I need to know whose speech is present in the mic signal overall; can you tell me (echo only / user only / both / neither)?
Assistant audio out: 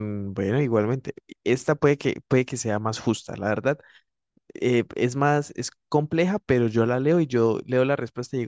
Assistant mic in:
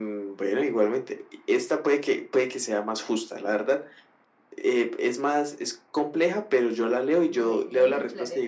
both